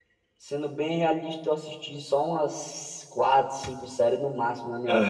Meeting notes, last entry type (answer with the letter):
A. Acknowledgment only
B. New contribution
A